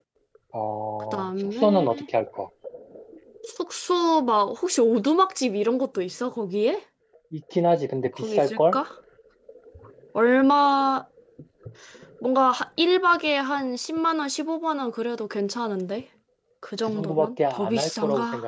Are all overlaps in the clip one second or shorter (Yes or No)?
No